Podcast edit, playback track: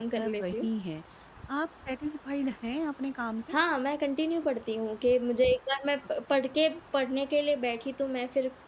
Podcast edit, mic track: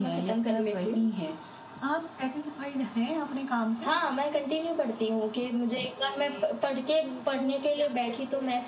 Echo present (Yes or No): Yes